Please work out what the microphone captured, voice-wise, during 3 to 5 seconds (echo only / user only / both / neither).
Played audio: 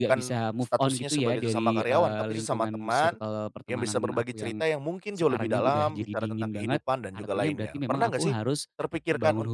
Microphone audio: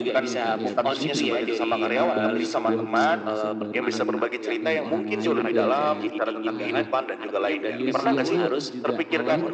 both